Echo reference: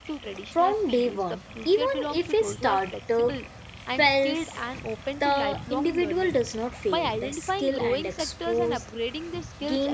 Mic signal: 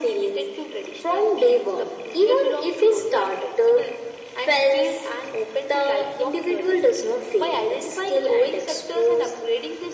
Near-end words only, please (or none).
none